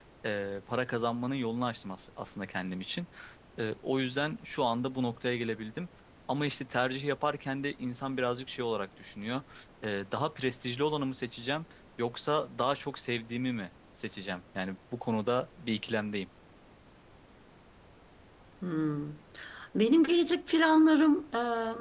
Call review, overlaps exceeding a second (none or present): none